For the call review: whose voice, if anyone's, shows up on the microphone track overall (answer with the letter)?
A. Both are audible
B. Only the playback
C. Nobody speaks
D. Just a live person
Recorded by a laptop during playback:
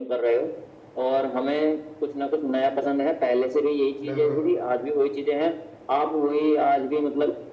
A